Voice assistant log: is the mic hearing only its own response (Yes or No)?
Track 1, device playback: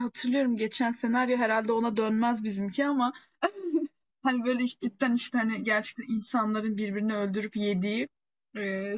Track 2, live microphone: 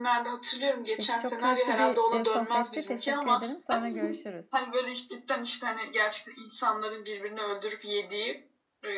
No